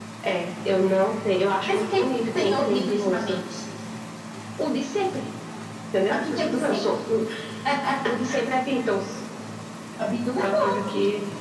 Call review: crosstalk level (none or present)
present